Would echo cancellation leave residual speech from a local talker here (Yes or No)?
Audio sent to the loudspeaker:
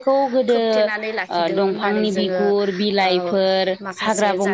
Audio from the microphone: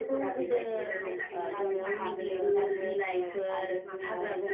Yes